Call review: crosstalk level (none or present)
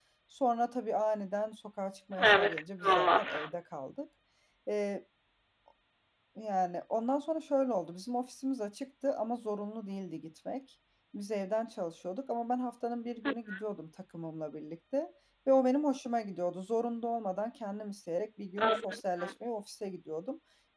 present